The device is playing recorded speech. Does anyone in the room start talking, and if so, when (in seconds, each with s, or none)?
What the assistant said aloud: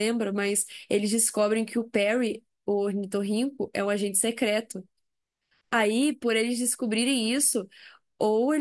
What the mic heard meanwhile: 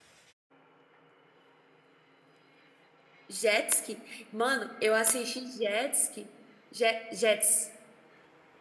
3.3 s